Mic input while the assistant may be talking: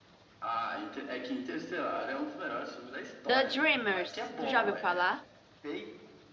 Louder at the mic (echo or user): user